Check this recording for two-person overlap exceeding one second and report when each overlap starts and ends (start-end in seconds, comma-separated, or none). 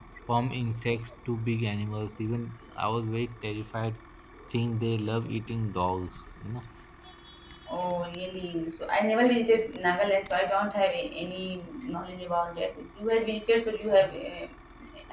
none